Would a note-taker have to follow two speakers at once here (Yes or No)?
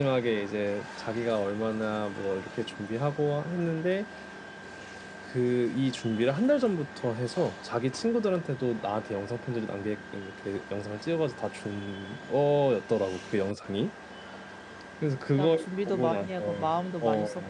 Yes